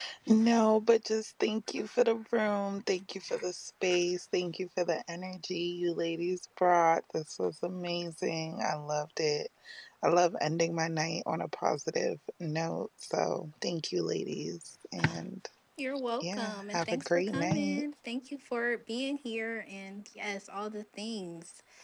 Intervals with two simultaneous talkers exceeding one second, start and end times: 16.2-17.8

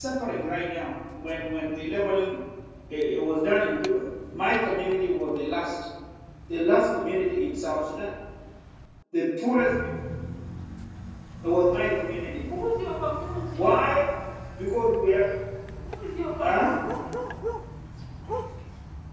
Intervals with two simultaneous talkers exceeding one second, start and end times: none

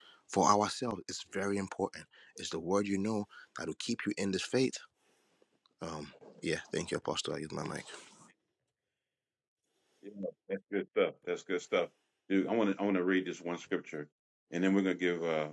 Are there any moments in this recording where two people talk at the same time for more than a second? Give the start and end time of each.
none

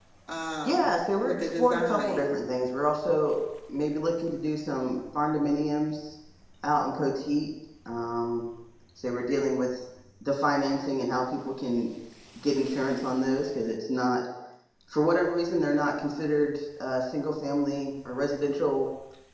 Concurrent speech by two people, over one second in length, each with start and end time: 0.6-2.4

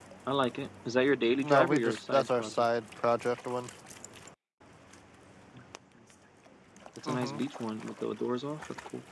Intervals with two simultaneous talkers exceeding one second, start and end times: 1.4-2.6

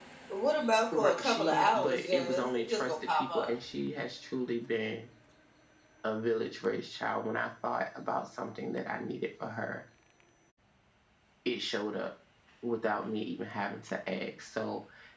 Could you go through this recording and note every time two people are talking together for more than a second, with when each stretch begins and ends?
0.9-3.5

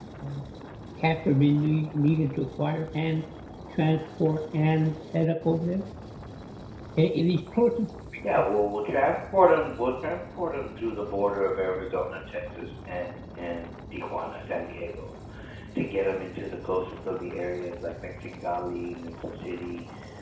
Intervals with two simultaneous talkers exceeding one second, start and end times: none

